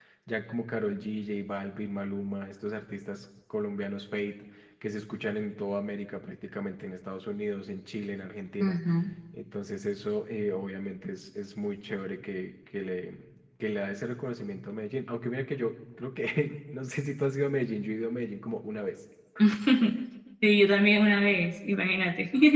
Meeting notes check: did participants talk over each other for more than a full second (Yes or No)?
No